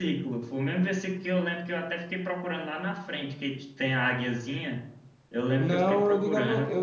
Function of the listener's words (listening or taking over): taking over